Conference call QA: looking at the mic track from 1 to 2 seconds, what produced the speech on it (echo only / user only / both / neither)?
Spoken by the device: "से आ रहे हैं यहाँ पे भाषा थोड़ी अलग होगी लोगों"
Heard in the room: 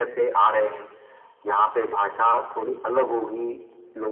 echo only